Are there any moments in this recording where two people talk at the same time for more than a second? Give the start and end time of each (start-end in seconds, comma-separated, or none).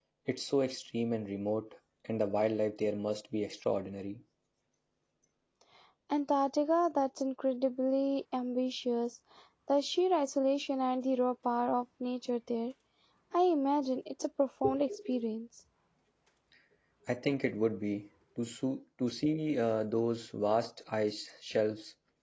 none